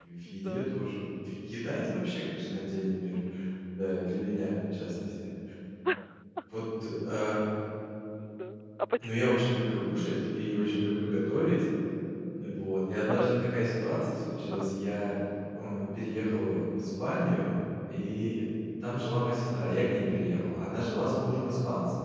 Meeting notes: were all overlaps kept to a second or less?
Yes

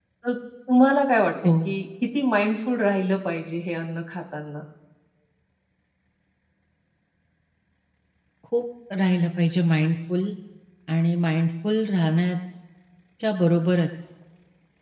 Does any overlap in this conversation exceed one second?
No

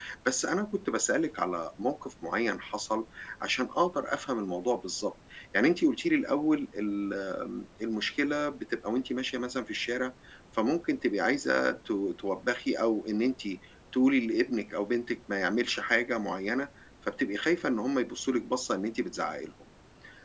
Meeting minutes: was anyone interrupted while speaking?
No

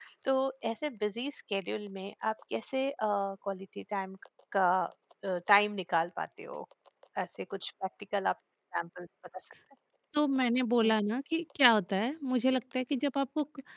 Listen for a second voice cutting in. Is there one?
No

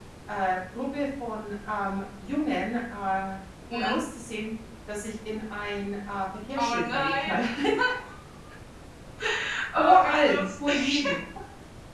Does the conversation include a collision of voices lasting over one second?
Yes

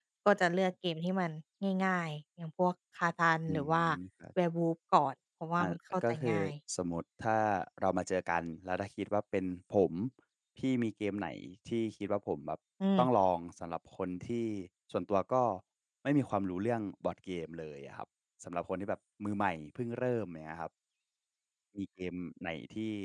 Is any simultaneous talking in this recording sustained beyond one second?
No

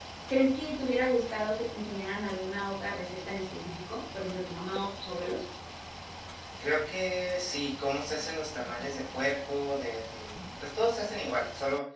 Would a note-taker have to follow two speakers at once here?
No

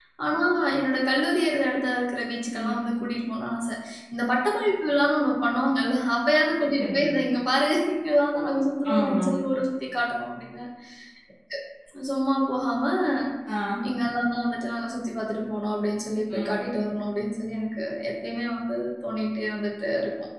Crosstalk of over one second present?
No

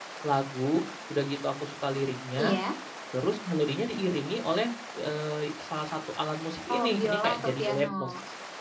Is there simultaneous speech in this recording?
Yes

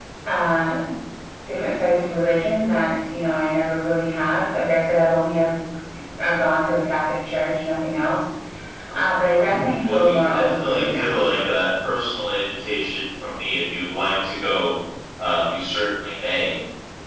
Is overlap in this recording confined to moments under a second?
No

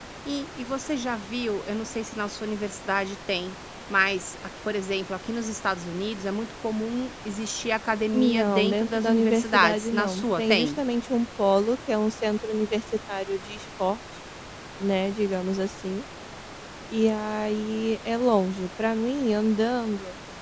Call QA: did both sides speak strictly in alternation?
No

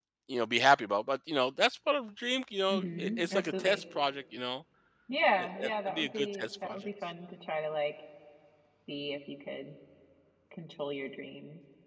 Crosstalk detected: Yes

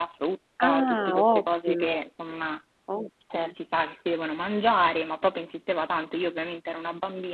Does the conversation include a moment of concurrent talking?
Yes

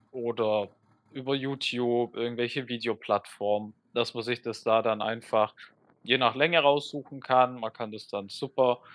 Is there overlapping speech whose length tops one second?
No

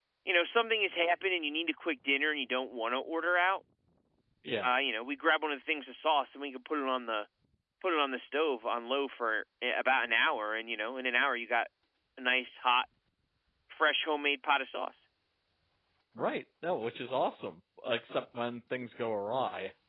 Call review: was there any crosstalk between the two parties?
No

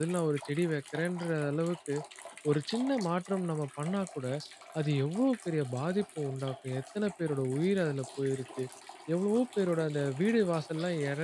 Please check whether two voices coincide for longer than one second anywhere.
No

